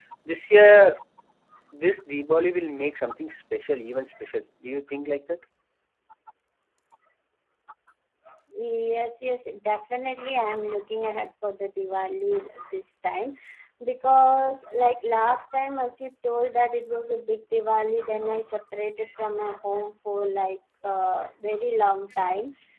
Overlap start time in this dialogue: none

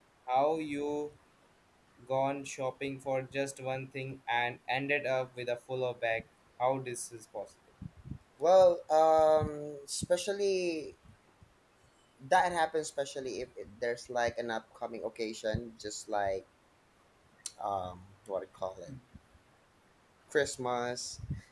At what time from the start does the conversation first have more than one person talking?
none

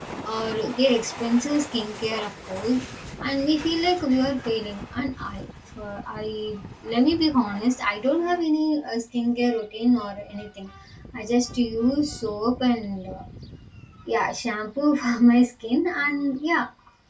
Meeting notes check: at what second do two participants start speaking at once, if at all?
none

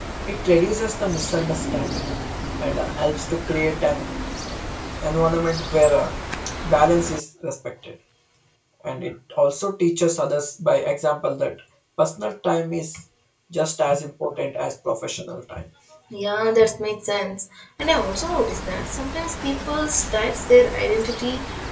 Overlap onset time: none

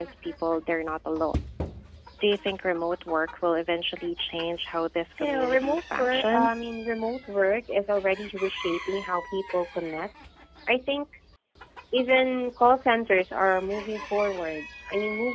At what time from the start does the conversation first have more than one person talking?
5.2 s

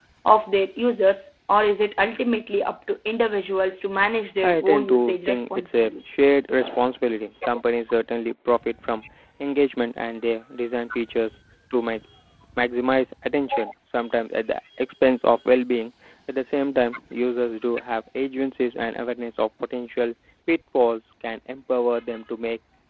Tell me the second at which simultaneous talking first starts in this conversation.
4.4 s

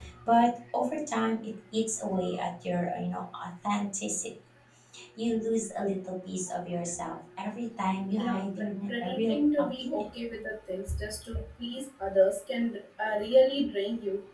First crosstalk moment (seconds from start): 8.1 s

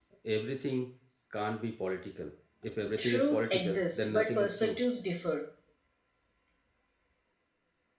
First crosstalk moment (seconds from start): 2.8 s

